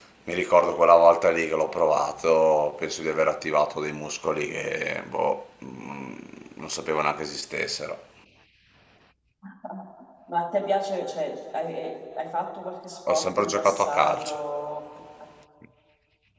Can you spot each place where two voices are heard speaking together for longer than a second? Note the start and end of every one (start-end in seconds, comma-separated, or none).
13.1-14.4